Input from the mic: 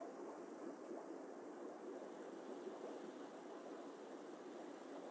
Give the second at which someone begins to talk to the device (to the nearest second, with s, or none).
none